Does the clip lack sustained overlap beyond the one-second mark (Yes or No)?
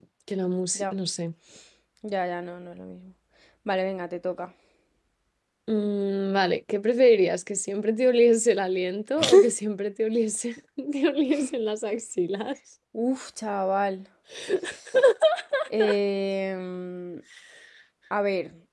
Yes